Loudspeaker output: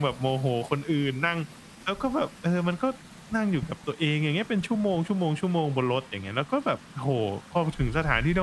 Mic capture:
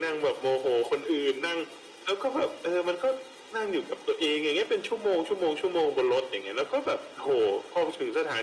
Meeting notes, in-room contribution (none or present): none